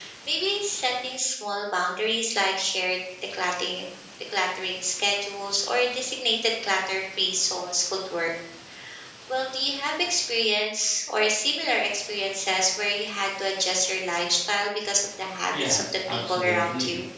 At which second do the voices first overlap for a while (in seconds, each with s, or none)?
15.5 s